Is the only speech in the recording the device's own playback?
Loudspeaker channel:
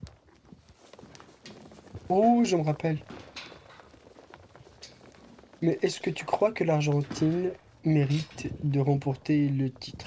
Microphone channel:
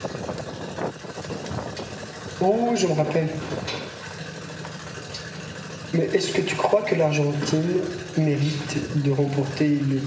Yes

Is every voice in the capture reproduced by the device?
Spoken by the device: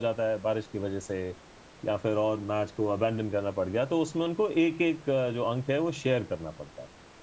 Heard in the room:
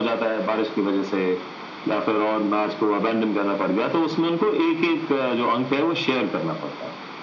Yes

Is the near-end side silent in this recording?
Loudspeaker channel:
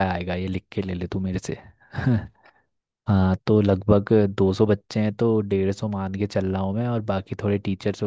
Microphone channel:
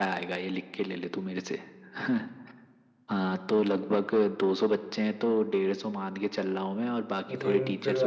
No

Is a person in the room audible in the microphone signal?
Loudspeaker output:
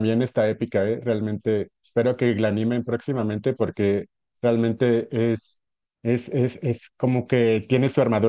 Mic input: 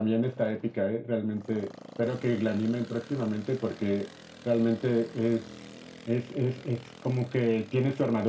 No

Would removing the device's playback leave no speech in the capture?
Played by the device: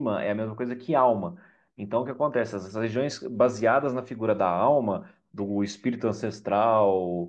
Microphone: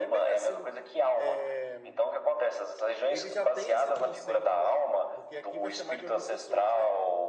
No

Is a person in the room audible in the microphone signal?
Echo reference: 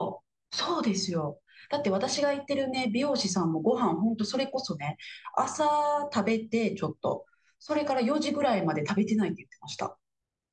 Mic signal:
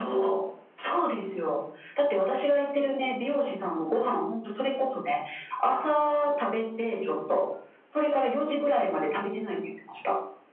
No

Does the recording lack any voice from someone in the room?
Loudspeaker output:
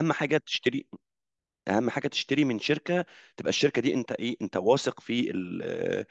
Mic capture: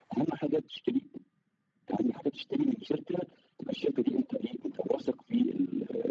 Yes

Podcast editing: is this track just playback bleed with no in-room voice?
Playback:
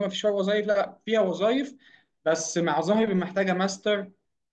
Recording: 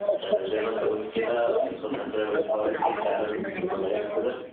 No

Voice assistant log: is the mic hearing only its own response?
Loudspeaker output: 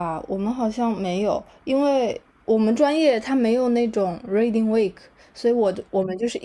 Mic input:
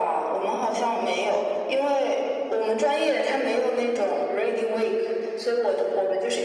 Yes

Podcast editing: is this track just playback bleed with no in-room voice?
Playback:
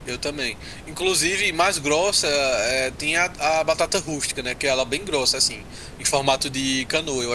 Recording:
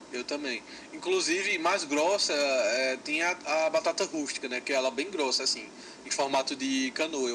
Yes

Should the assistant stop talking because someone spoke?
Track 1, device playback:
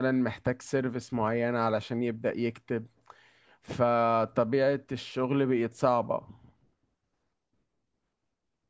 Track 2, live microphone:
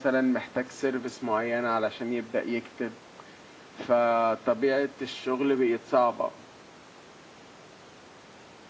No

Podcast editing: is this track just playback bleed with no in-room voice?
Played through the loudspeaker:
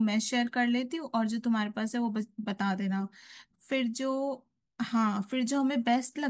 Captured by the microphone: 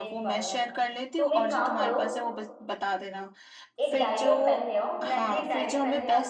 No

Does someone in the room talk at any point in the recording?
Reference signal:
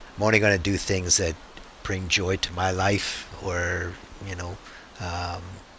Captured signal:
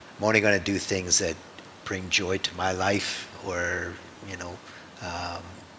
No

